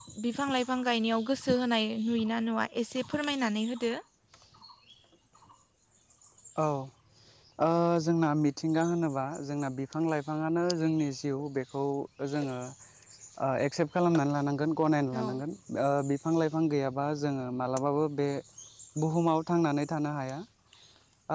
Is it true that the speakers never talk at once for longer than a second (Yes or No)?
Yes